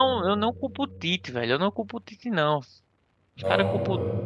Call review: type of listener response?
listening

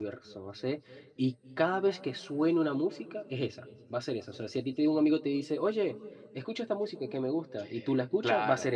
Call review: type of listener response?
taking over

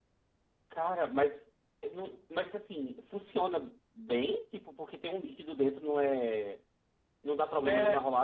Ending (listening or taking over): taking over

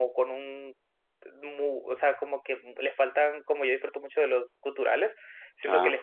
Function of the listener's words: listening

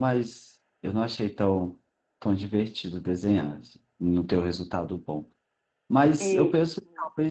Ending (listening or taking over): listening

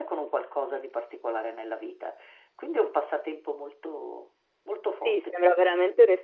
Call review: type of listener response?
taking over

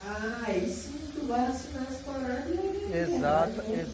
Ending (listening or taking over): taking over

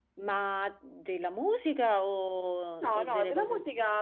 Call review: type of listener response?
taking over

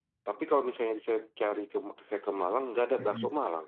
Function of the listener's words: taking over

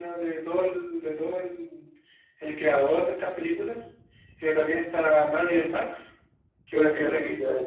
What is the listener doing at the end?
taking over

